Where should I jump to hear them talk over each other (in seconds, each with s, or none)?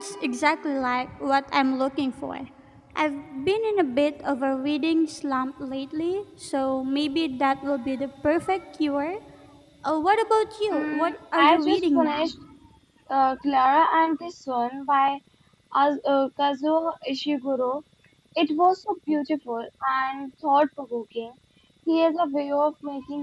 10.7 s